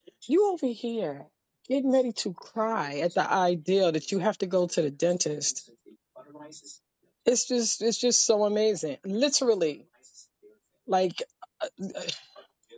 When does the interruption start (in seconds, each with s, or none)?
none